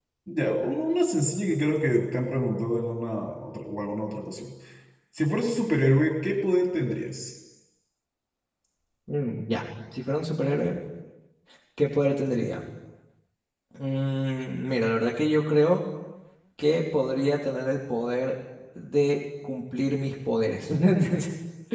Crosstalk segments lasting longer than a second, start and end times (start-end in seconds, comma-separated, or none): none